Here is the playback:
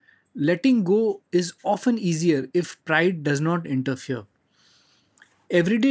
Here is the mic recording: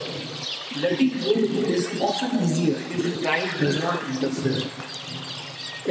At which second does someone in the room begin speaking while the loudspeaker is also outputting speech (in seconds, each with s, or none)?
none